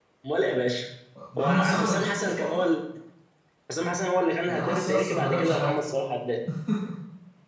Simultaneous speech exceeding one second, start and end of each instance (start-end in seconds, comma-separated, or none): 1.4-2.6, 4.5-5.7